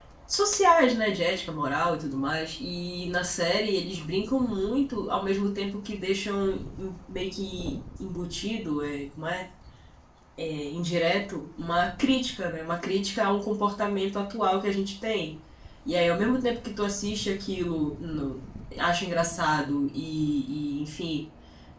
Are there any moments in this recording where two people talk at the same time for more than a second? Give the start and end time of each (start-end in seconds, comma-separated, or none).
none